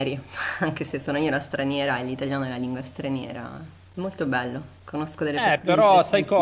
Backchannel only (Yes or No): No